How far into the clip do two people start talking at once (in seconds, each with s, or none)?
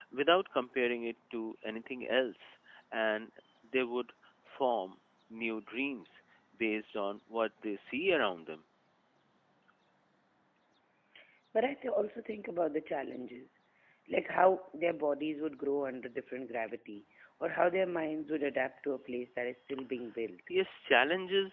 none